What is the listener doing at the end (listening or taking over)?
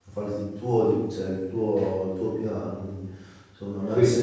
listening